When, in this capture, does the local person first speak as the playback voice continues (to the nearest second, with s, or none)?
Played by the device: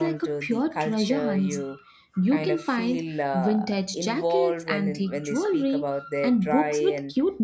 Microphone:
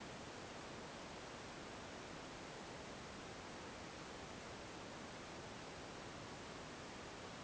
none